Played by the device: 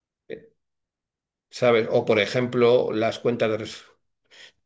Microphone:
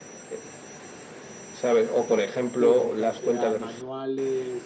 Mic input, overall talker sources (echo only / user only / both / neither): both